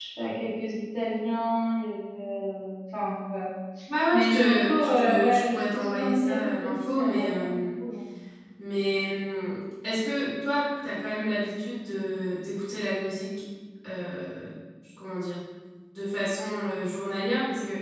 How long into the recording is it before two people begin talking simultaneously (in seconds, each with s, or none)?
4.1 s